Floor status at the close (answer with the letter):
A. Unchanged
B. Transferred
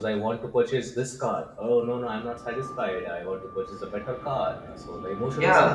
B